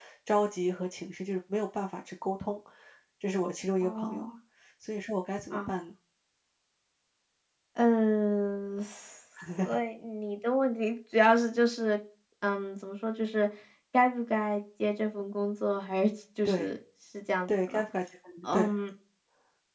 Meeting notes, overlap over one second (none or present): none